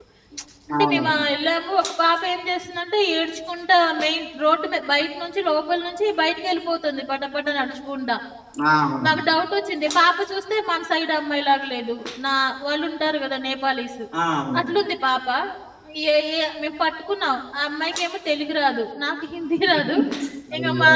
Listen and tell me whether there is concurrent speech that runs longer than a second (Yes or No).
No